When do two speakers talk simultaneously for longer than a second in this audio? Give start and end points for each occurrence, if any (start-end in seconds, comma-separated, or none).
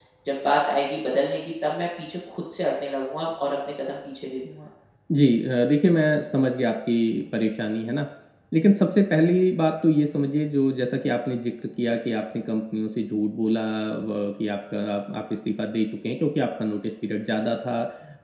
none